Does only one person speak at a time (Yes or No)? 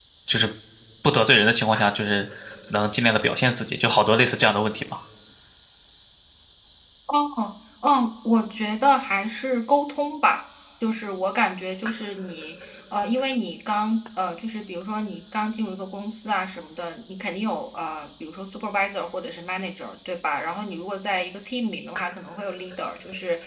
Yes